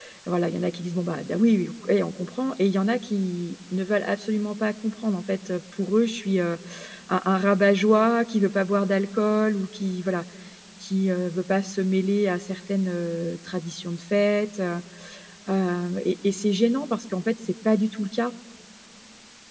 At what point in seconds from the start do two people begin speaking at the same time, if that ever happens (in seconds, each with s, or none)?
none